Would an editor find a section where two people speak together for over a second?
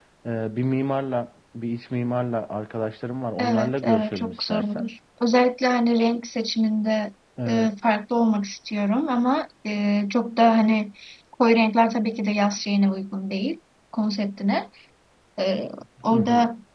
Yes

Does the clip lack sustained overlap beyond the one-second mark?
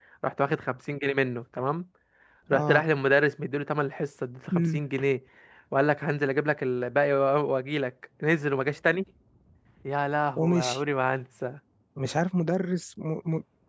Yes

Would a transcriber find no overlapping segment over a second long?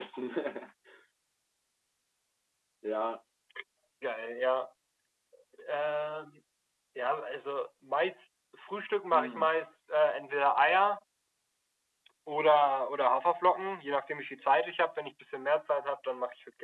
Yes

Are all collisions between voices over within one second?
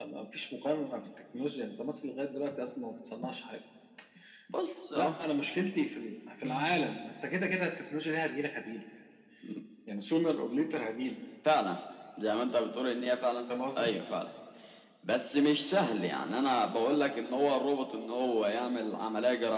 Yes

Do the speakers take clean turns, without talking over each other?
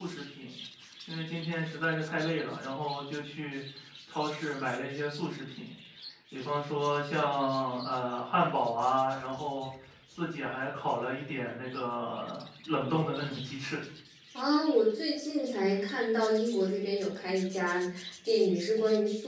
Yes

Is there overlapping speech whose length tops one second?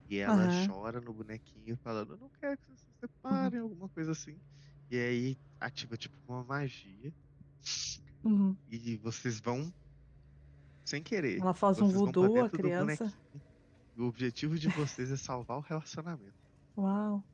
Yes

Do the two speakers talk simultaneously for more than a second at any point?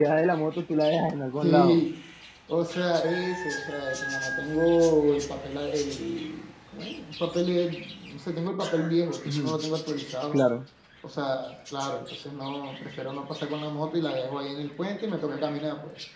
No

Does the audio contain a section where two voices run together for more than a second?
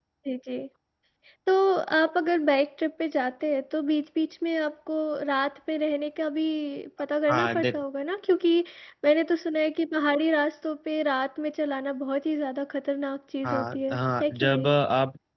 Yes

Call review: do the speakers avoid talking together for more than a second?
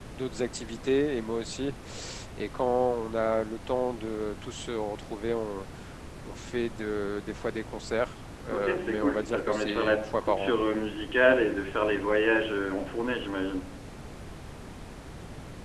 No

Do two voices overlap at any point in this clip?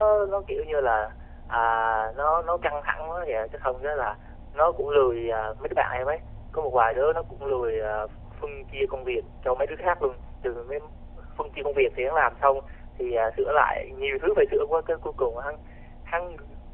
No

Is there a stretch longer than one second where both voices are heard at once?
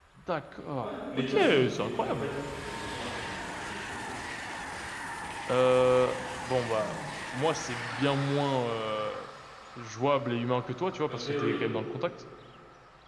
Yes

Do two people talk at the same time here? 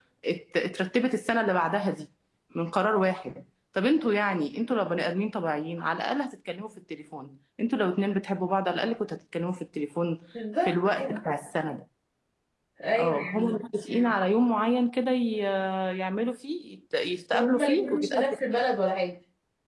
Yes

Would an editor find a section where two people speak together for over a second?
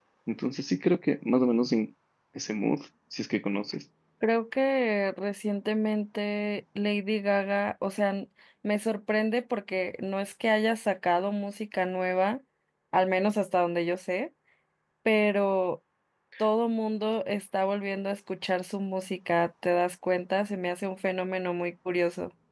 No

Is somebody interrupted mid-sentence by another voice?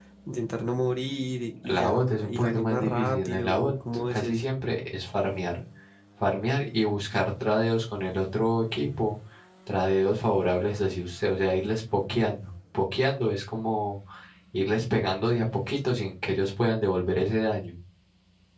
Yes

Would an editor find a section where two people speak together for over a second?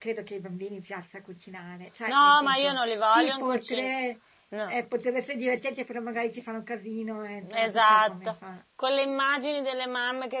Yes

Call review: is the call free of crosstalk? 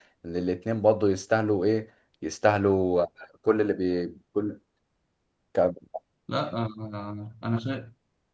Yes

